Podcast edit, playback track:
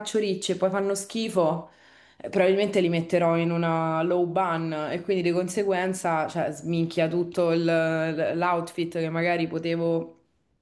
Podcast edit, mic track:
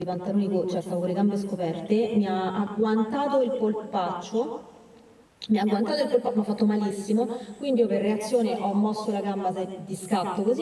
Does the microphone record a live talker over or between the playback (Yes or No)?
Yes